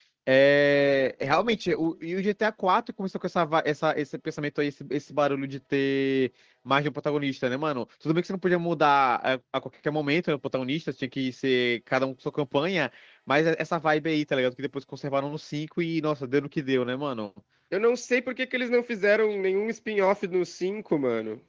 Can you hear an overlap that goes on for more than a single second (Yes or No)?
No